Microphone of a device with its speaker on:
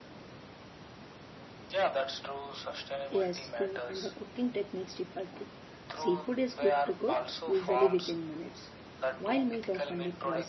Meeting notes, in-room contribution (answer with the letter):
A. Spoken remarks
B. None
A